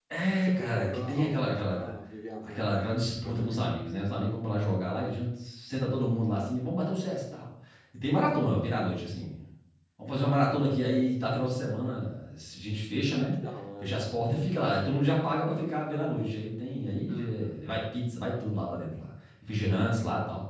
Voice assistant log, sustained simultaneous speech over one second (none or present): present